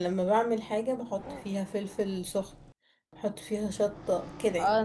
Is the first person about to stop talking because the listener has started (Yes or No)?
Yes